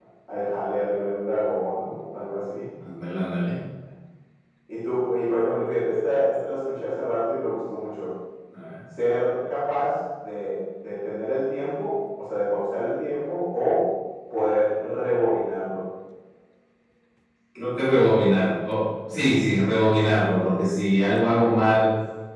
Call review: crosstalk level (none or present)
none